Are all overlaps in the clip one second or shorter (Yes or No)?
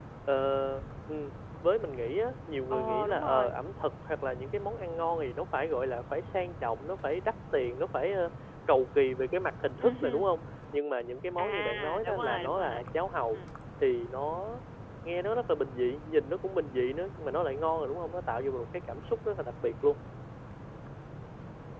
No